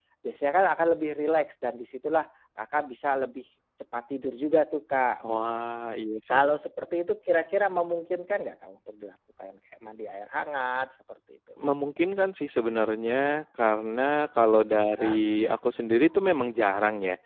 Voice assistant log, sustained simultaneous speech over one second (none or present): none